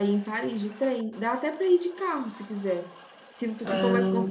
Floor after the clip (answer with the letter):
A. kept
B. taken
A